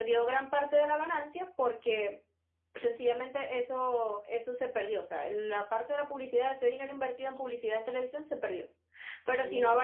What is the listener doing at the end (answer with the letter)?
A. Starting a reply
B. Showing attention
B